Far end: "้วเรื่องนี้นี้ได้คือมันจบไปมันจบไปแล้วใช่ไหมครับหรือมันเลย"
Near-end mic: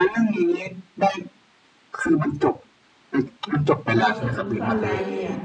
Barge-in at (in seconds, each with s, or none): 4.0 s